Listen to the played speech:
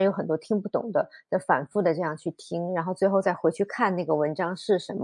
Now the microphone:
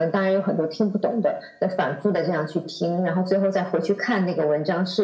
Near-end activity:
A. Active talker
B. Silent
B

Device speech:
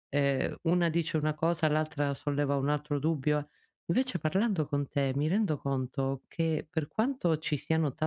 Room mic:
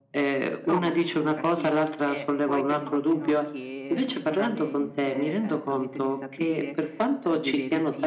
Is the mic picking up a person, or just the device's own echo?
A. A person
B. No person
A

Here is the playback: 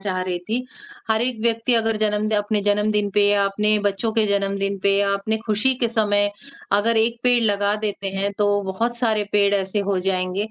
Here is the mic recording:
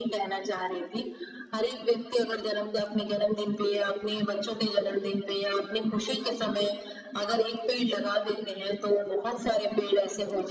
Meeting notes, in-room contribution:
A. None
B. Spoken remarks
A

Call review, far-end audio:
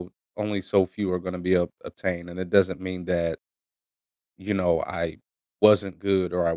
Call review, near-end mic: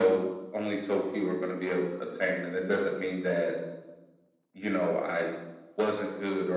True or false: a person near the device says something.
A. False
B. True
A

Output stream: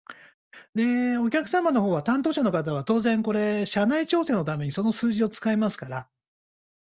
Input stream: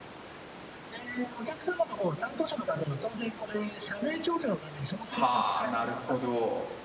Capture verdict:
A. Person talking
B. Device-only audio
A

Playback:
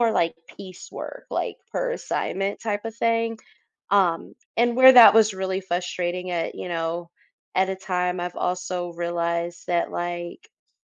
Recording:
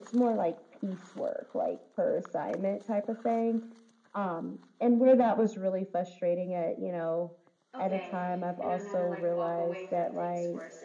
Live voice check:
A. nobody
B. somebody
B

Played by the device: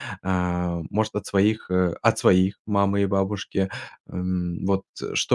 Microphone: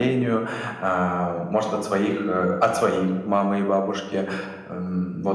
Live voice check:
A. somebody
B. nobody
B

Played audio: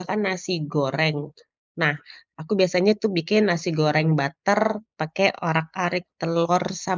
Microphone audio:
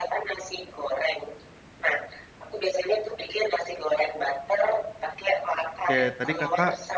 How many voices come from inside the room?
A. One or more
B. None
A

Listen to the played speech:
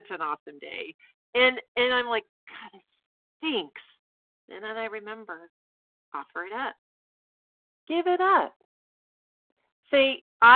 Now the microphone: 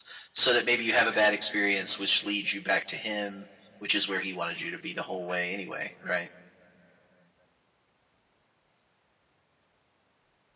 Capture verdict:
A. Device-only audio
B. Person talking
B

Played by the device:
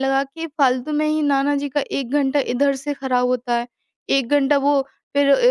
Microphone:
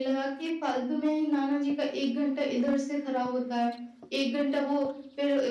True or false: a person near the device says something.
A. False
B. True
A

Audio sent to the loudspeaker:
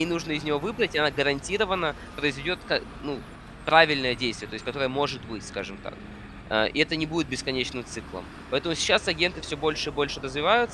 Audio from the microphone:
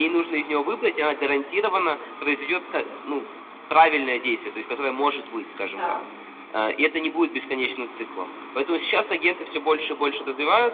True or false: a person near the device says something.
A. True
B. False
A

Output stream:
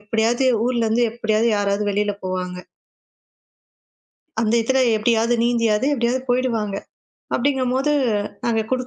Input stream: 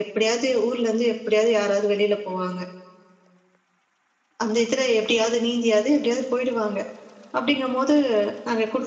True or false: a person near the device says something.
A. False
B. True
A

